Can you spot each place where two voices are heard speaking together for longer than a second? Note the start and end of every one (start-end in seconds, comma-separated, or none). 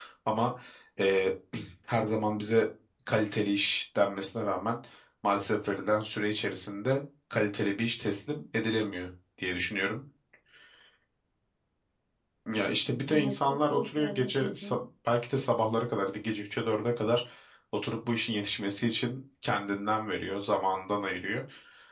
13.1-14.8